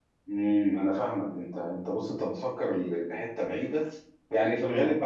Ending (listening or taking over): listening